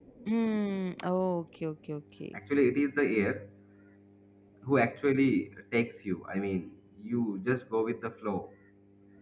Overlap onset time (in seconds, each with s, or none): none